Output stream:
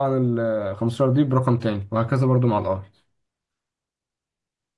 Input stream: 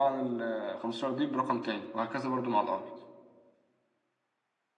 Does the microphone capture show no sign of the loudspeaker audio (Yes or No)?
No